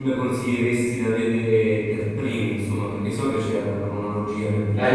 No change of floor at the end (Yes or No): No